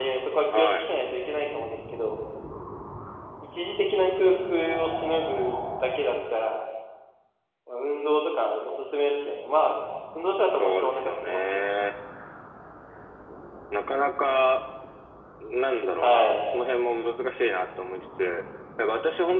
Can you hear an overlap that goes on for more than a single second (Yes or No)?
Yes